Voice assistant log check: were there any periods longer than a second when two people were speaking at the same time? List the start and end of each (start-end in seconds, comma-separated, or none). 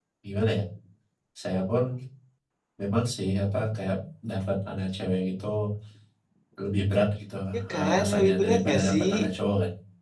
7.7-9.1